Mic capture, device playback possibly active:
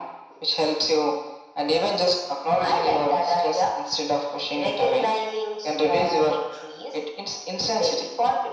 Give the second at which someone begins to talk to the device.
none

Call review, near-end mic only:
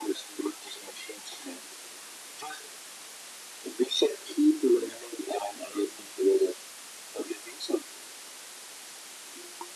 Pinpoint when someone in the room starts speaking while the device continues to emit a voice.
none

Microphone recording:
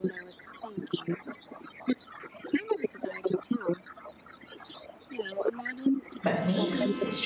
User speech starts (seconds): 6.2 s

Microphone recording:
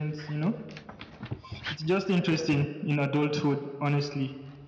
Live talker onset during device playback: none

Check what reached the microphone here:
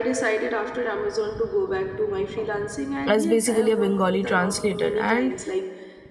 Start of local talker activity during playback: 3.1 s

